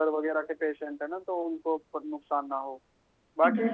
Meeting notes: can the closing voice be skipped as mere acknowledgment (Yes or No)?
Yes